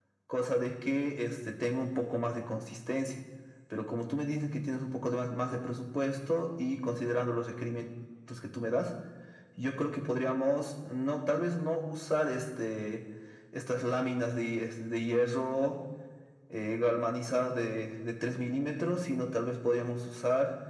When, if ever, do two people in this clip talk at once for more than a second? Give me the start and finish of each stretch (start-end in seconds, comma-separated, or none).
none